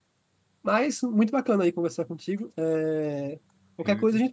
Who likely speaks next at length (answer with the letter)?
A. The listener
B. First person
B